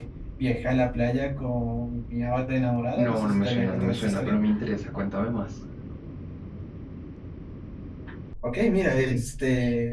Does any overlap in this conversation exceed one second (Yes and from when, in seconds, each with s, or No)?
Yes, from 3.0 s